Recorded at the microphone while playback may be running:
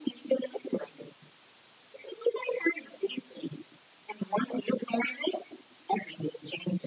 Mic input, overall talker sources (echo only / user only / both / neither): echo only